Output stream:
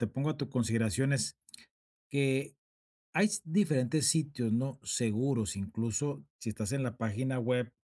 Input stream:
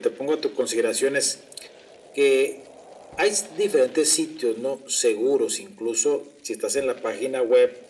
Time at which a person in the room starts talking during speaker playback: none

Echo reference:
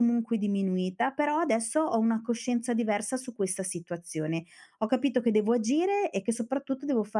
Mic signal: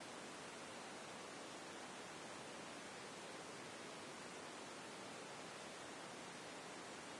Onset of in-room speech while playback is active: none

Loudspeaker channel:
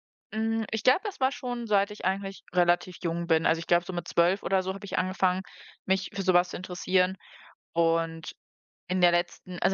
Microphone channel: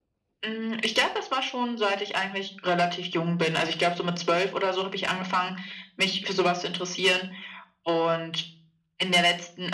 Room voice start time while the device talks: none

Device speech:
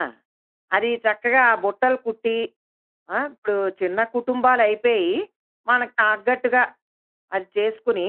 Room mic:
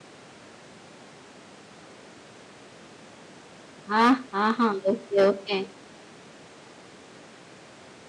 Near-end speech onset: 4 s

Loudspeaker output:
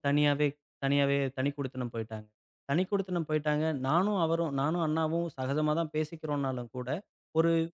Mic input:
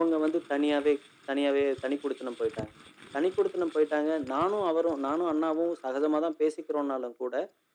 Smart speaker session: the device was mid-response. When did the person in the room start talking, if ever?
none

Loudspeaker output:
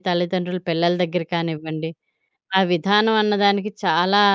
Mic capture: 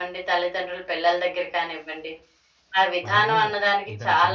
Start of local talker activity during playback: 3 s

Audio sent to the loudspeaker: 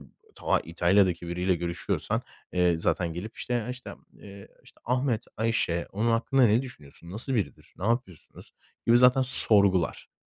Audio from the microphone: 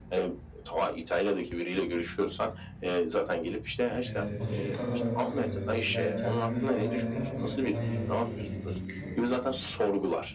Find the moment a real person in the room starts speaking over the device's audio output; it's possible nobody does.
4 s

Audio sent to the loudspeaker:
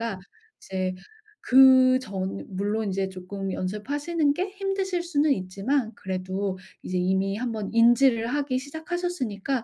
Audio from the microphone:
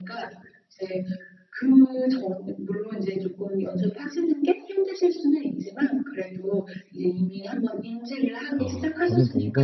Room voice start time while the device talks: 9 s

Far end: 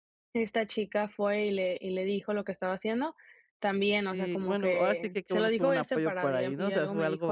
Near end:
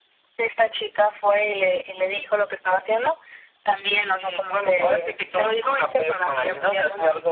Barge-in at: none

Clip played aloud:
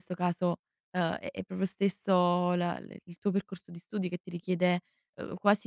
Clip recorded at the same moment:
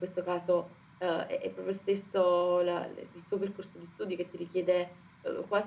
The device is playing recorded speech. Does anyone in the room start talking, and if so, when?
none

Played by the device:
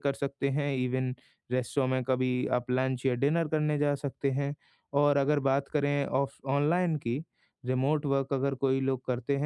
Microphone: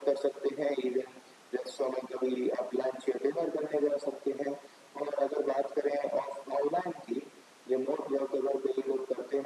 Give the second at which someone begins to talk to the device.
none

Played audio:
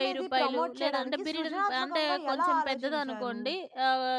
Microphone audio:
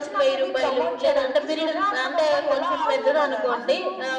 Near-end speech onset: 3 s

